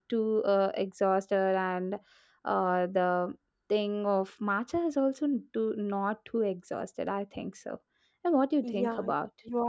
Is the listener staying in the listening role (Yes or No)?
No